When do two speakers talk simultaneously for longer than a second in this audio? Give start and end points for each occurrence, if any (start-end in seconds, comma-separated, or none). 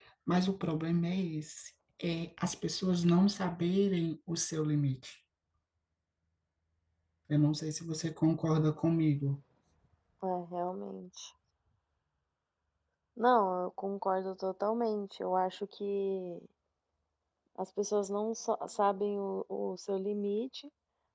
none